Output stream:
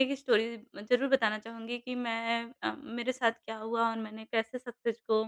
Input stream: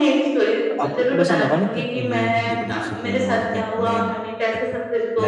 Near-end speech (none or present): present